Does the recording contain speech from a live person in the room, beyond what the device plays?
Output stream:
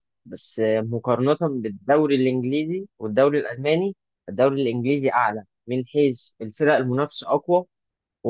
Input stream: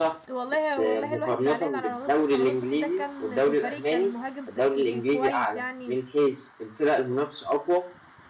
Yes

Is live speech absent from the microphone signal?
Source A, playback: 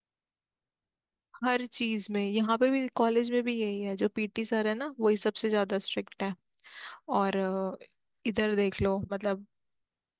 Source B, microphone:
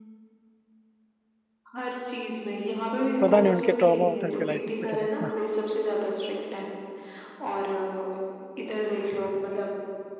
No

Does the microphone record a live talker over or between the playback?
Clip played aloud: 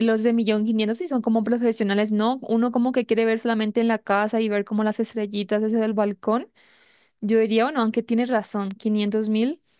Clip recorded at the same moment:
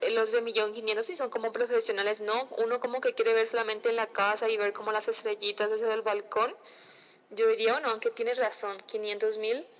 No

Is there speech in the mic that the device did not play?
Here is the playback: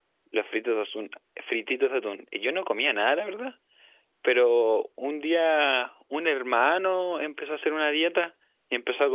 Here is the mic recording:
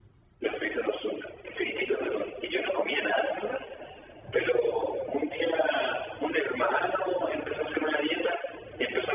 No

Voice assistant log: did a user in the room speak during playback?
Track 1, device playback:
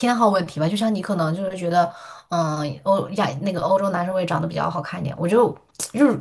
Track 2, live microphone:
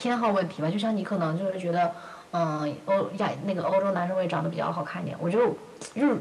No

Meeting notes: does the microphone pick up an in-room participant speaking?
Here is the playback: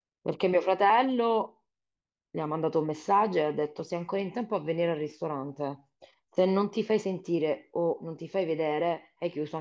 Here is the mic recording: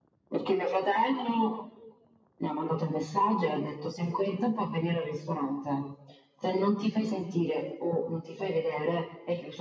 No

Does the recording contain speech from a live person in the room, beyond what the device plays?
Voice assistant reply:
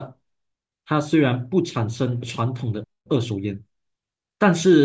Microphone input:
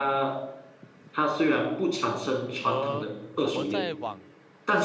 Yes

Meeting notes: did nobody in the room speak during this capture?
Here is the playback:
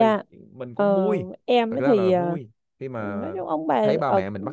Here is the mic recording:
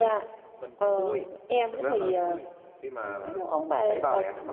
Yes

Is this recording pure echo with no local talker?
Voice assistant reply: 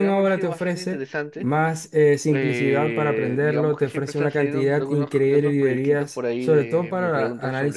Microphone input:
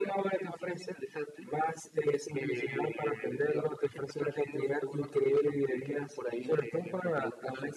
Yes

